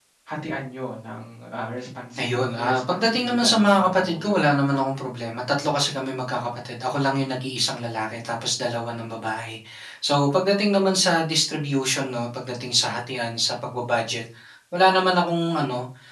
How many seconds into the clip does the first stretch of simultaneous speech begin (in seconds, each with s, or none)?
2.2 s